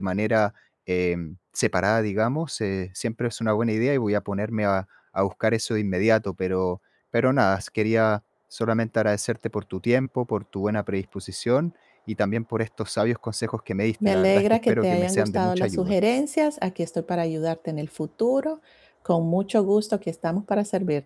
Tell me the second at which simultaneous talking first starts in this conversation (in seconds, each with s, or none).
14.0 s